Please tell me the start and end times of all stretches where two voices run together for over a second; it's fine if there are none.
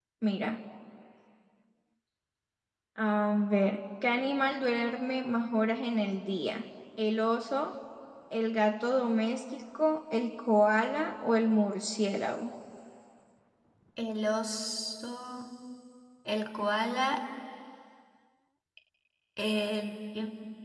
none

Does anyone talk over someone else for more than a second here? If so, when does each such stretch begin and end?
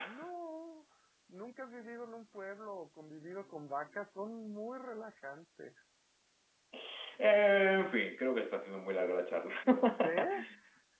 none

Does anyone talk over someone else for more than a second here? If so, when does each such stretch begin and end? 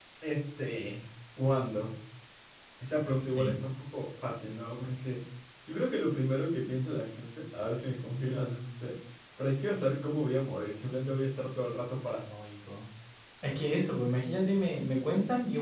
none

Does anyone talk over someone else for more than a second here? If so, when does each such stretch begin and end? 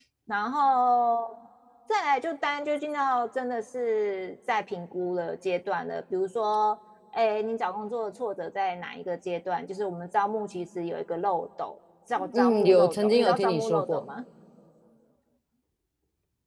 12.4-14.1

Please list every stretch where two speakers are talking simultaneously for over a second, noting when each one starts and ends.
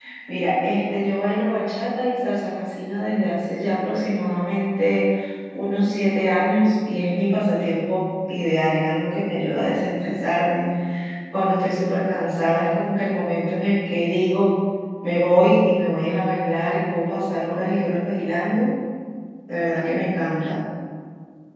none

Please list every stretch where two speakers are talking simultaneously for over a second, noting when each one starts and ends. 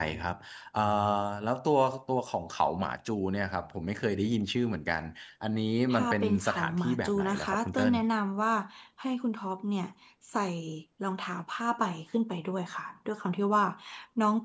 5.9-7.9

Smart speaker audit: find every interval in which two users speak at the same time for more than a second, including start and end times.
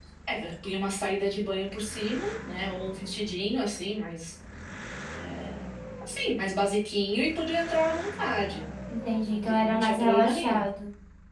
9.2-10.6

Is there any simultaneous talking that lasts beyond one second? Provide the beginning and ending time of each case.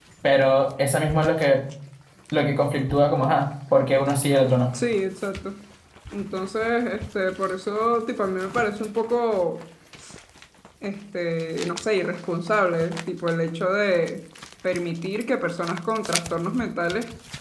none

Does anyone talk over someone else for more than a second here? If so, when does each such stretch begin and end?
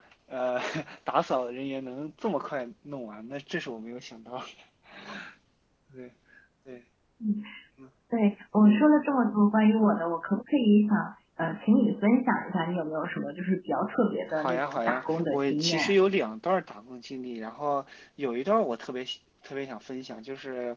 14.3-16.0

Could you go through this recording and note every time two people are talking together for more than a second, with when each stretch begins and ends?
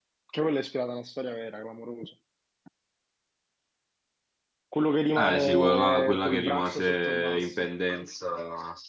5.2-7.7

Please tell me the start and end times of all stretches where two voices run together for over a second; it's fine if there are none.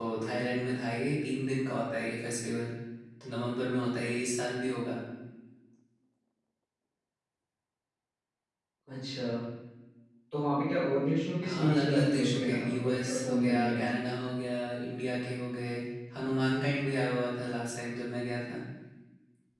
11.4-13.8

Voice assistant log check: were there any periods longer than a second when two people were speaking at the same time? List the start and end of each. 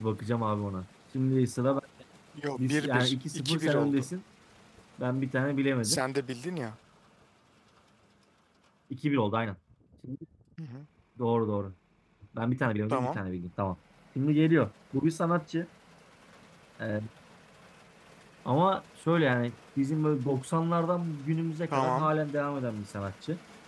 2.6-4.1

